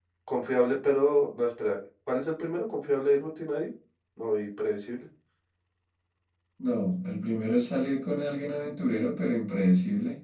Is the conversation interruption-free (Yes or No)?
Yes